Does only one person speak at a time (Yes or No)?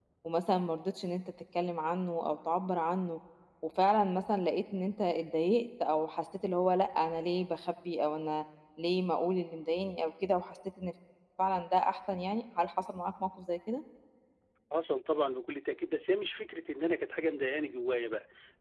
Yes